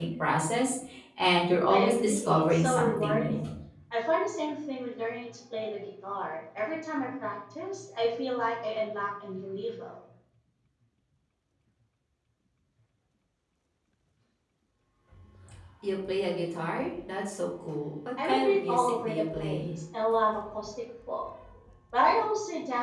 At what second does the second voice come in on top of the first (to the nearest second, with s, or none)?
2 s